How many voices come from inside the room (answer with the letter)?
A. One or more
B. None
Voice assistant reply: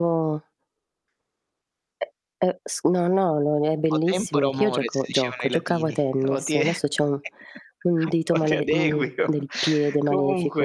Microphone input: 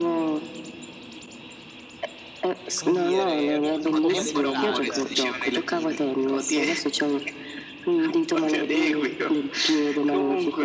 A